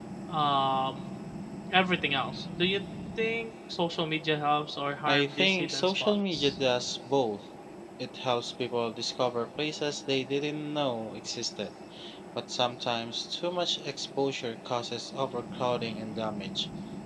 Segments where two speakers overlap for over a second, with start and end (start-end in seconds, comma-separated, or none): 5.1-6.6